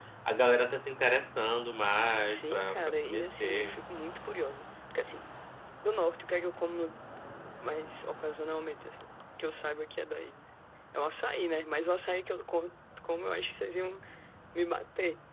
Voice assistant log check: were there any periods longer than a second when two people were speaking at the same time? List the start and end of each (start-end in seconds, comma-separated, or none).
2.3-3.8